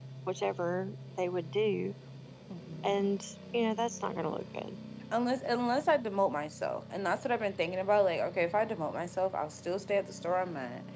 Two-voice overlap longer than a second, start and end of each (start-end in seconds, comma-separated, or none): none